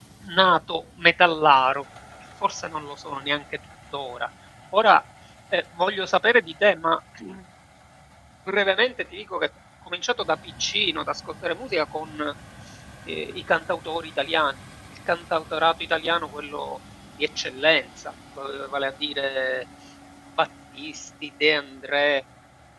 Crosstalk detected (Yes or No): No